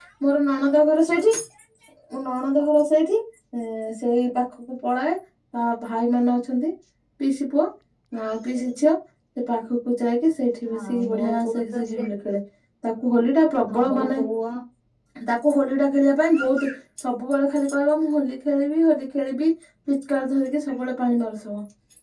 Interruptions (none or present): present